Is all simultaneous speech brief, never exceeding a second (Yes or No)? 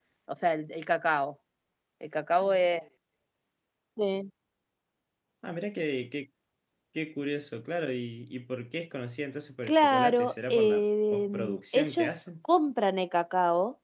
No